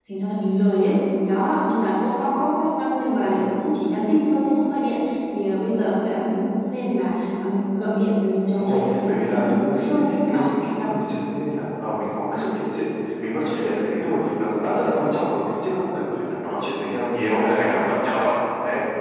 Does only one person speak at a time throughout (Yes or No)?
No